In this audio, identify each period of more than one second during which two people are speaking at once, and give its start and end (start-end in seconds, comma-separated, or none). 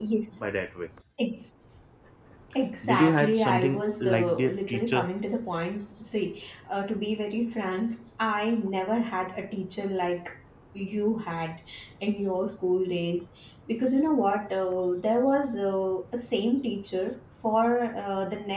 2.8-5.1